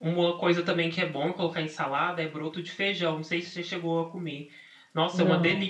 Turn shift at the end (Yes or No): No